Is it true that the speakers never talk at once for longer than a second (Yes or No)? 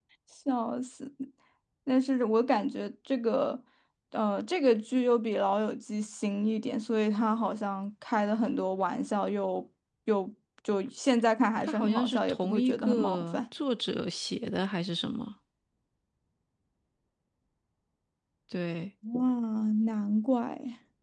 No